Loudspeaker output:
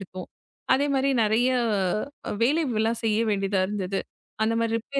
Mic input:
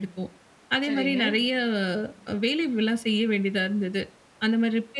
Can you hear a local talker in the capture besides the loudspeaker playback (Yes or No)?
Yes